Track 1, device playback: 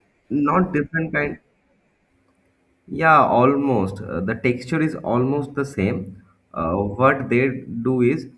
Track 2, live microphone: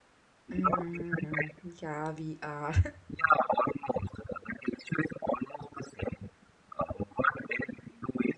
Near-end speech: present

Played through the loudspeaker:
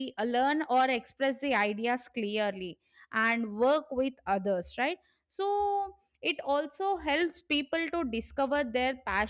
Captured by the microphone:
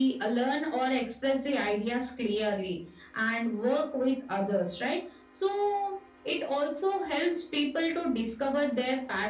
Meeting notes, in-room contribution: none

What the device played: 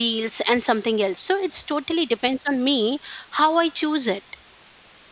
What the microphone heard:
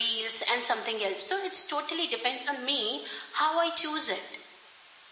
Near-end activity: none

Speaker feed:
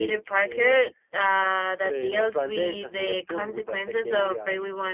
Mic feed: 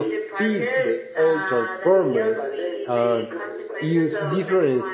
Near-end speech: present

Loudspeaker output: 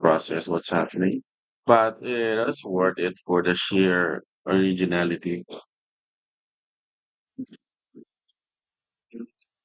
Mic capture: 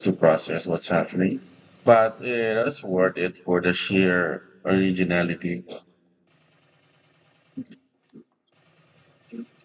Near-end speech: none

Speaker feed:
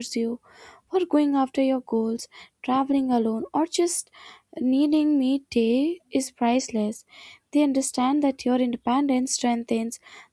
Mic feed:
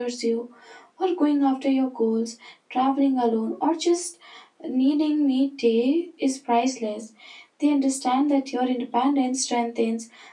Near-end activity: none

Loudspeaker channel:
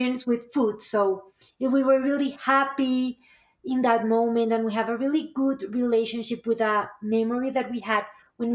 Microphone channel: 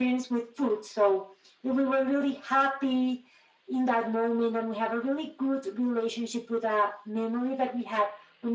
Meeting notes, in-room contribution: none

